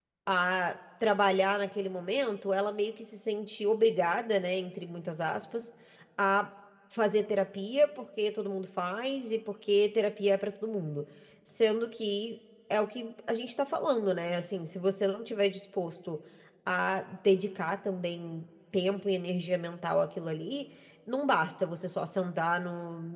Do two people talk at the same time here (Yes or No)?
No